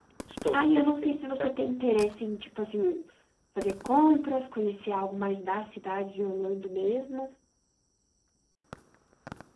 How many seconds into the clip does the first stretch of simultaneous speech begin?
0.5 s

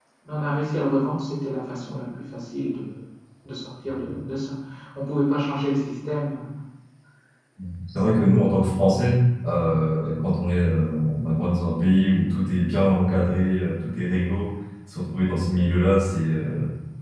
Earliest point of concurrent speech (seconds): none

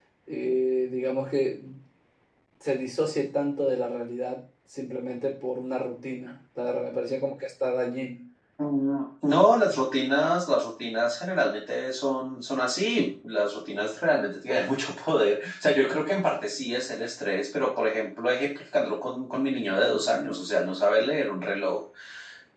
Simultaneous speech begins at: none

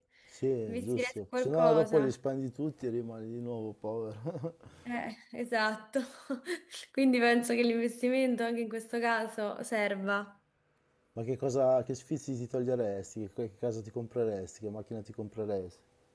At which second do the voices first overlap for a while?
0.7 s

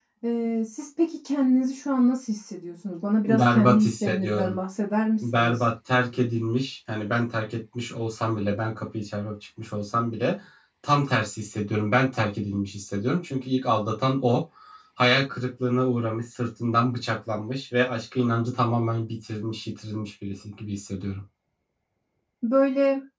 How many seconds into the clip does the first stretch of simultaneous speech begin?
3.3 s

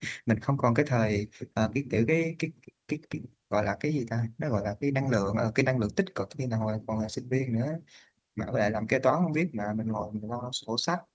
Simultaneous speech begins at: none

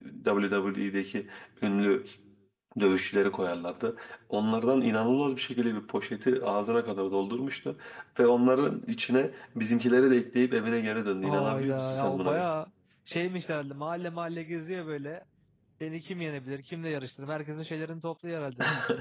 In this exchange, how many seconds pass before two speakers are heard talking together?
11.2 s

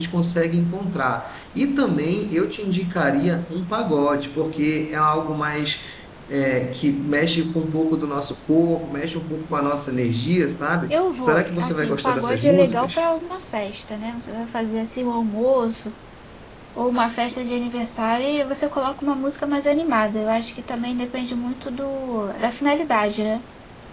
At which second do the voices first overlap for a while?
10.9 s

